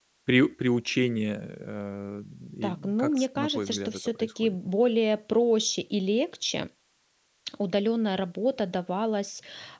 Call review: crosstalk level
present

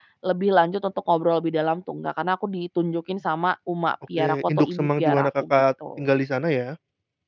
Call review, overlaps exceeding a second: present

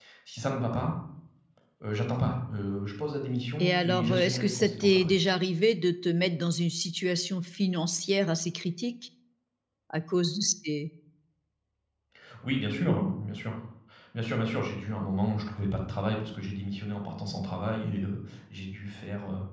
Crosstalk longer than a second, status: present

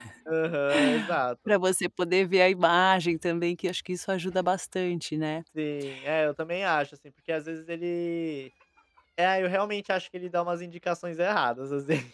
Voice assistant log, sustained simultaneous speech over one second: none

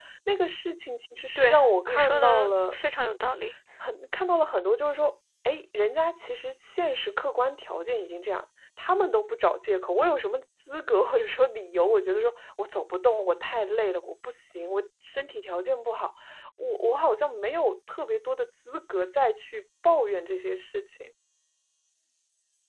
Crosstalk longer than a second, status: present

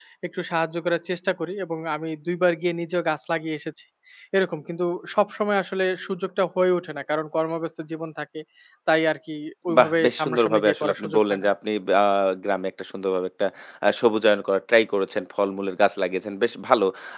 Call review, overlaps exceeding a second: present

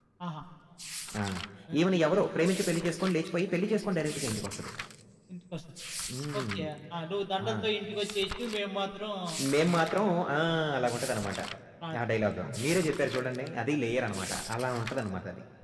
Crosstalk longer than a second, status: none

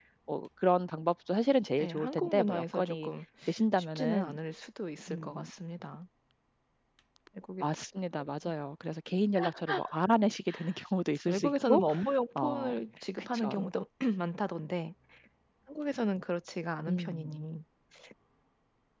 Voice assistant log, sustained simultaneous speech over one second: present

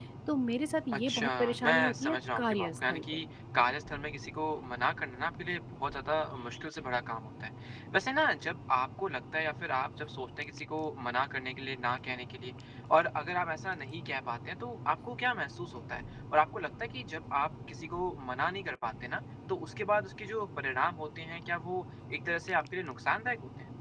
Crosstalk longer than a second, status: present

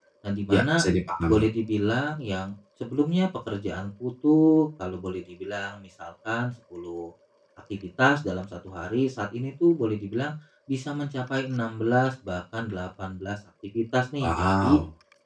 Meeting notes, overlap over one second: none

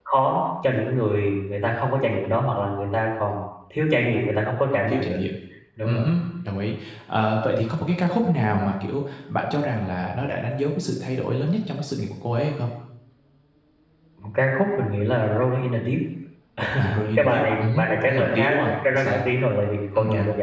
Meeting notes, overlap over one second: present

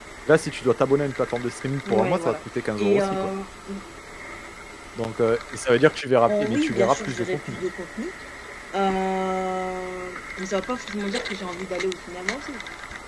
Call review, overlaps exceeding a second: present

